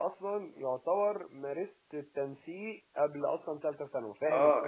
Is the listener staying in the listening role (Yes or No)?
No